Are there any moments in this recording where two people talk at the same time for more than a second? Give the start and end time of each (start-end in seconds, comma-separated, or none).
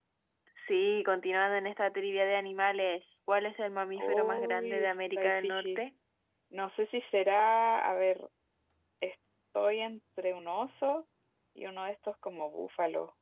4.0-5.8